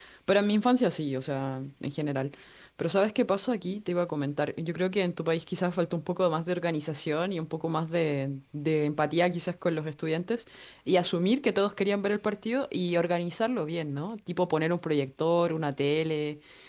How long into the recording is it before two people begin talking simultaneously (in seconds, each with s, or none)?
none